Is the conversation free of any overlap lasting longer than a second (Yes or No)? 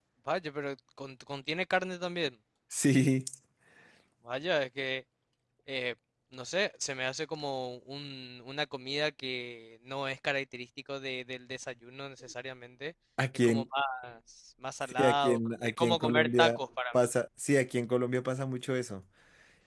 No